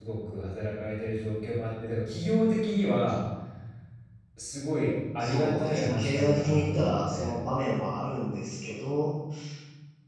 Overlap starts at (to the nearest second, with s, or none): 5 s